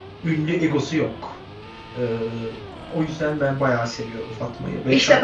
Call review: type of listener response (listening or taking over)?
taking over